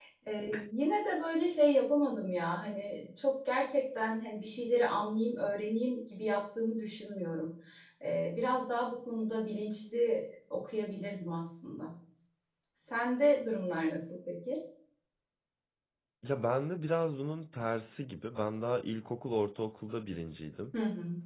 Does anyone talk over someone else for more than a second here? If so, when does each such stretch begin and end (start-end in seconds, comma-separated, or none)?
none